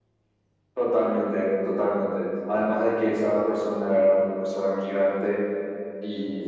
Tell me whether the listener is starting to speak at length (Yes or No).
No